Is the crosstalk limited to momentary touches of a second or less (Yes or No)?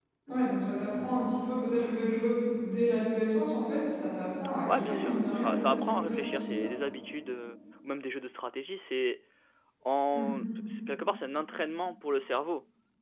No